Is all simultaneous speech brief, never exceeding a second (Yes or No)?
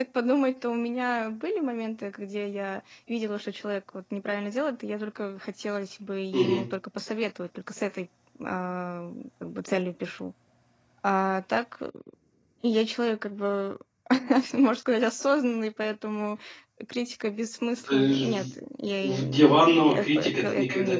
No